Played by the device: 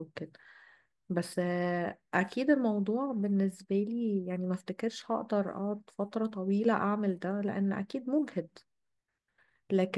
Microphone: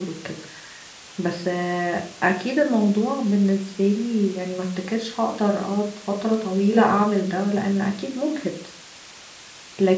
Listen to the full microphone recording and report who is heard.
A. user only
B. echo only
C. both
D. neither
B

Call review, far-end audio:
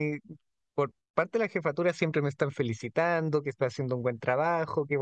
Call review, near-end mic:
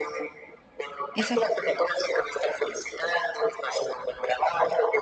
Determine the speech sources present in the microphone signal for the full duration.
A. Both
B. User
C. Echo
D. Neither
A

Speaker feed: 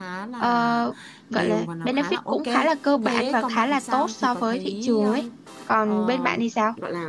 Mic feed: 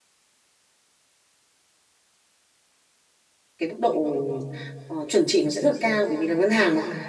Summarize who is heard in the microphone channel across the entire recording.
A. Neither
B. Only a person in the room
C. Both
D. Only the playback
B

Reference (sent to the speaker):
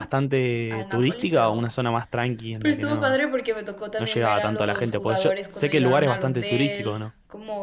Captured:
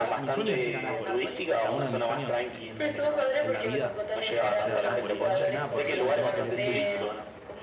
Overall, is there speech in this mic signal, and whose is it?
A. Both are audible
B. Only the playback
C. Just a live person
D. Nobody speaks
A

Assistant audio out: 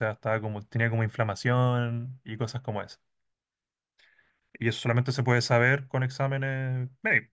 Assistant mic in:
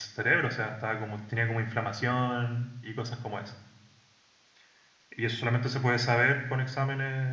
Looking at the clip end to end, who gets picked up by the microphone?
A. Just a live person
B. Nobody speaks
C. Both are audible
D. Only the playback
D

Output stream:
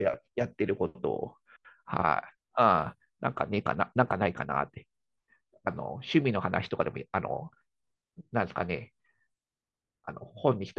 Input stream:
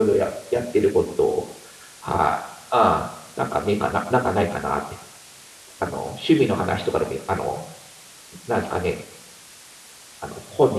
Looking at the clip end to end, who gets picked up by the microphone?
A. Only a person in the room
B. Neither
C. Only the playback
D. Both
C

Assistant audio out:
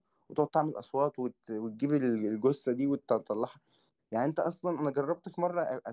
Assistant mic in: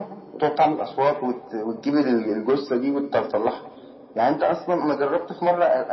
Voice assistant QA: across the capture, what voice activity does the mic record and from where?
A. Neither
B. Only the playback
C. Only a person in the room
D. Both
B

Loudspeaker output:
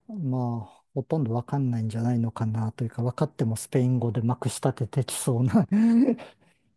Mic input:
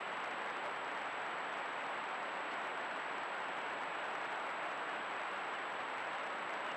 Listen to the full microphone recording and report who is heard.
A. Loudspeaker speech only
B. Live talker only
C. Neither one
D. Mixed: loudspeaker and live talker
C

